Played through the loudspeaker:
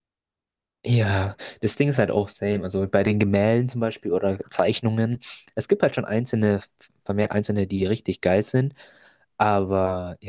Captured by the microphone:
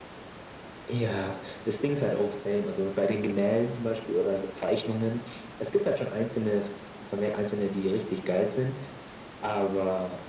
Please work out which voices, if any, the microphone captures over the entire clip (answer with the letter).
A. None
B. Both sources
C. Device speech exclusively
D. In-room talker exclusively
C